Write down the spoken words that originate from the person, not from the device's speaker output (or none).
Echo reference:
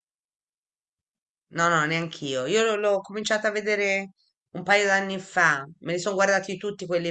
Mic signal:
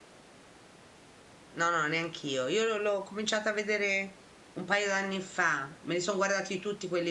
none